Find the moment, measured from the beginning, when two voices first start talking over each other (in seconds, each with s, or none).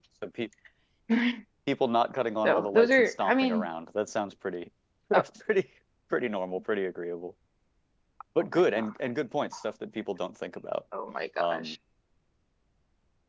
2.4 s